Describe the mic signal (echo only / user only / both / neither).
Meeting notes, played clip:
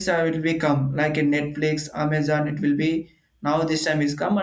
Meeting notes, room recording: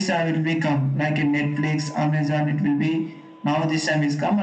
echo only